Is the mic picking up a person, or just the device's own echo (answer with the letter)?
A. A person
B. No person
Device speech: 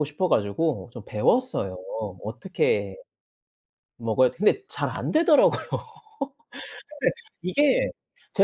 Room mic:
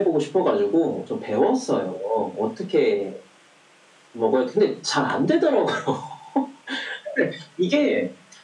B